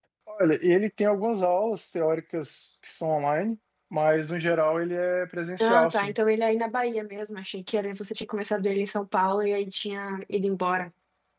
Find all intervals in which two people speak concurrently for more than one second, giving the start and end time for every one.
none

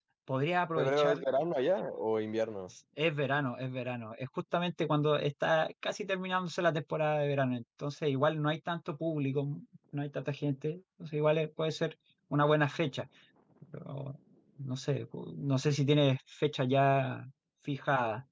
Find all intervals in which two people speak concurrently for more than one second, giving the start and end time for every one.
none

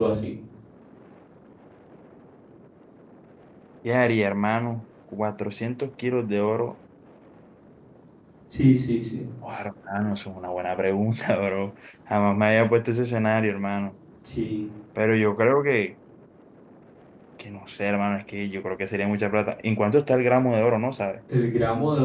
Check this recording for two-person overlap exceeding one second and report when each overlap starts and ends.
none

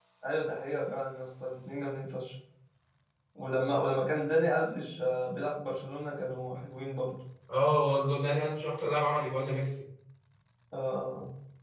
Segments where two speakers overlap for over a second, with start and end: none

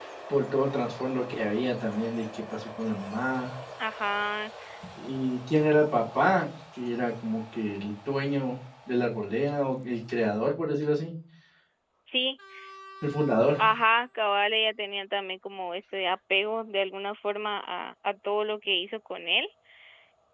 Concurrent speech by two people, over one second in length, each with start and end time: none

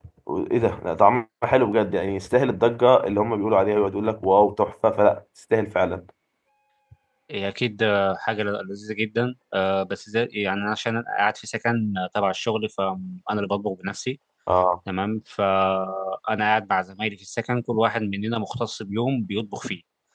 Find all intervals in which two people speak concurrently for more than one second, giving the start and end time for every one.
none

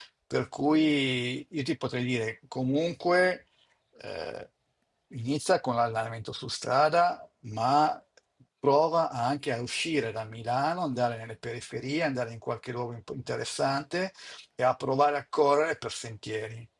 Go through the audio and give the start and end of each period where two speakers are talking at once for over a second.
none

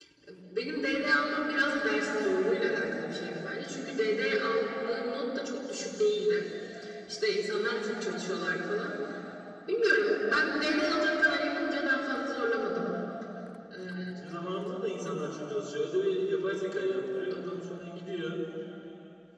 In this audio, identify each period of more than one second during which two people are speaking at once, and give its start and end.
none

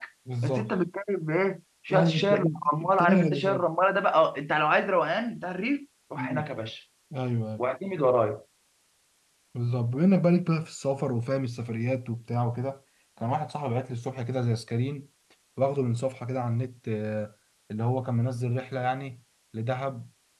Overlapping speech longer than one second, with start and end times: 1.9-3.6

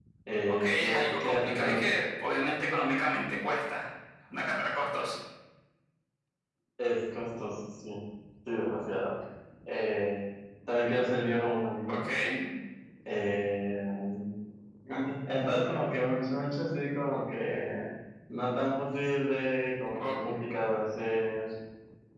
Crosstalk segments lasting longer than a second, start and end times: 0.6-1.9

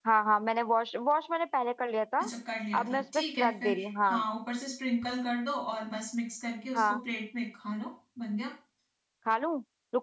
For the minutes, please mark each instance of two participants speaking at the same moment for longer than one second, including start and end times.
2.8-4.2

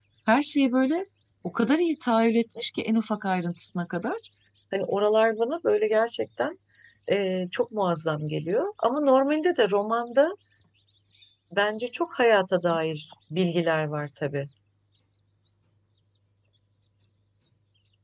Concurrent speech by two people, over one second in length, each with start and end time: none

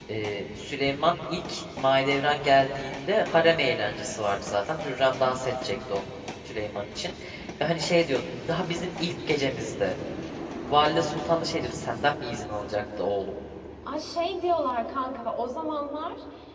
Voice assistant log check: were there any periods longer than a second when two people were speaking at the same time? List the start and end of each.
none

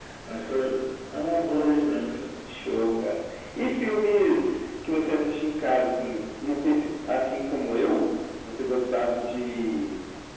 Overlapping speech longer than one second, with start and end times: none

